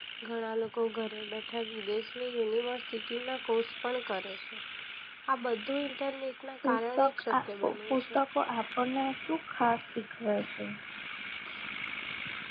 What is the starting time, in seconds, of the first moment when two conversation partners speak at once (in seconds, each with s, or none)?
6.6 s